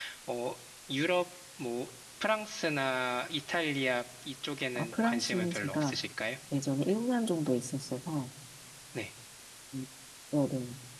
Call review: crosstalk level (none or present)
present